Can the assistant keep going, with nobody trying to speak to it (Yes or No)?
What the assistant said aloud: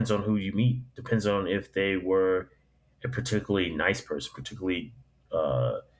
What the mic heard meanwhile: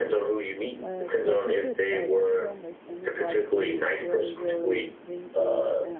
No